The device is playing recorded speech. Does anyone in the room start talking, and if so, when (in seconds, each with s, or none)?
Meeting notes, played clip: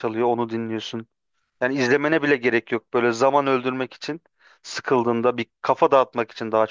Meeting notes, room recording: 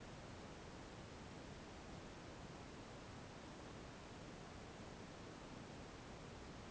none